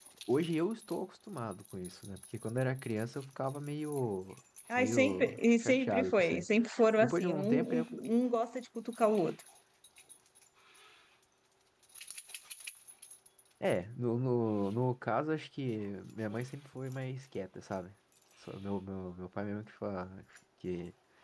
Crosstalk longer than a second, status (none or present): present